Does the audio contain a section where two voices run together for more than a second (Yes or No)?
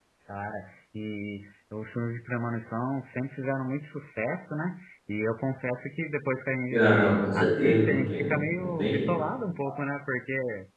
Yes